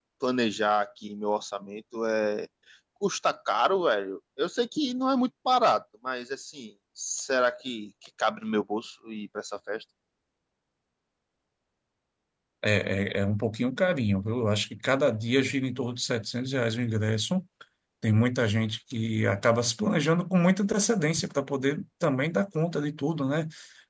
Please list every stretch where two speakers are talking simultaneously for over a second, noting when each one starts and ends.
none

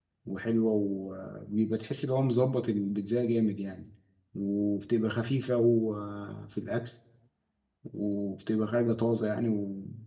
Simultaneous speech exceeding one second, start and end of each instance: none

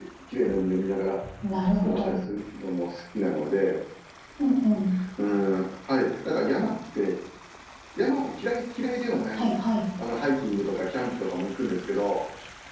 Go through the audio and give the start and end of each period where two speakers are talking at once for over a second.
none

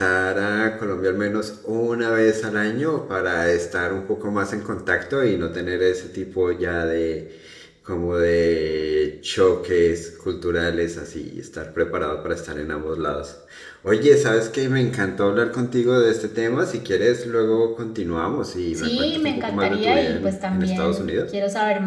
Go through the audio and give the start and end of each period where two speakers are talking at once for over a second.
18.8-21.1

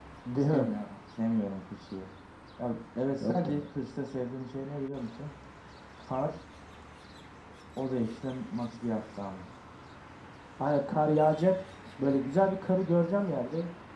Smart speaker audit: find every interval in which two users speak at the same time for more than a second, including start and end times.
none

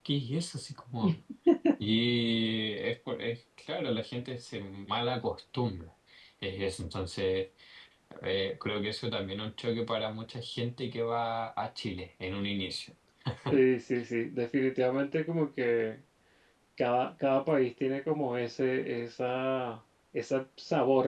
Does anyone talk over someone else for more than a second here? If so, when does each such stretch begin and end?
none

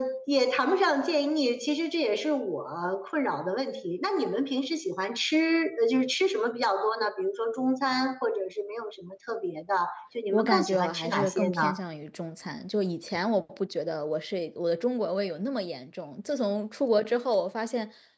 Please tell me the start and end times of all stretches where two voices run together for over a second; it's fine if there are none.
10.3-11.7

